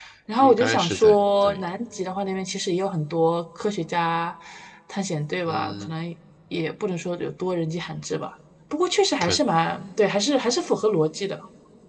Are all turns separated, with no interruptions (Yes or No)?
No